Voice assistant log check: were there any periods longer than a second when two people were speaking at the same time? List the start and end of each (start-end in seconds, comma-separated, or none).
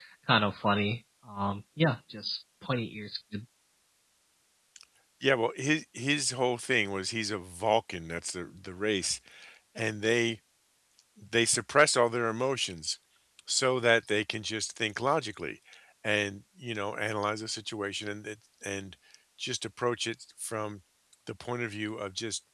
none